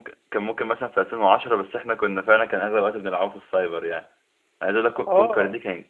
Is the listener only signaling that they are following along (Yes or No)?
Yes